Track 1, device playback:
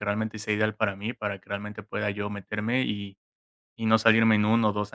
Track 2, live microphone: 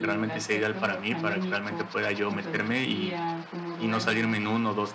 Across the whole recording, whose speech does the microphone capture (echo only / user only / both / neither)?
both